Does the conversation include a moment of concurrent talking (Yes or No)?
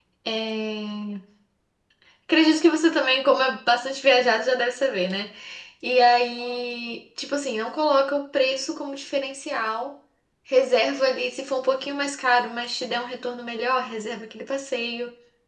No